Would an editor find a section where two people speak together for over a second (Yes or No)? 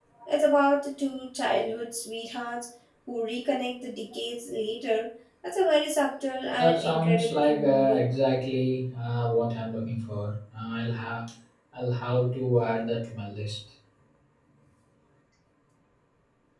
Yes